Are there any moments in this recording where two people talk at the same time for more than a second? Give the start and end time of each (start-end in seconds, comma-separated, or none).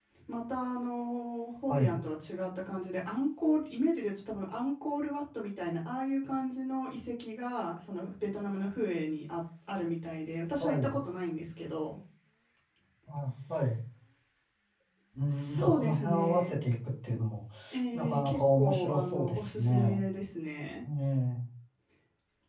15.3-16.5, 17.9-20.0